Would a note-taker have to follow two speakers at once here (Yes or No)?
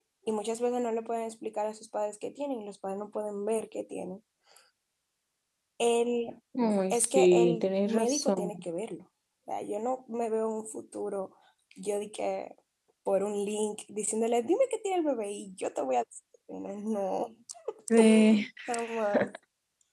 Yes